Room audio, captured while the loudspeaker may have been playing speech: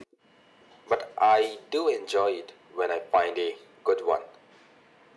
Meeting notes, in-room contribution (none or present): none